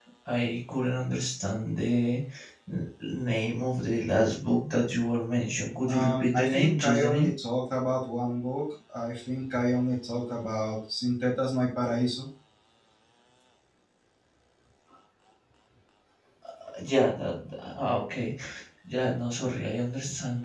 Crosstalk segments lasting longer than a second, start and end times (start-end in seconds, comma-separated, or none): 5.9-7.3